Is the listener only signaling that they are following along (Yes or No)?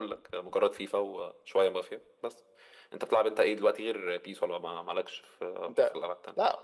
No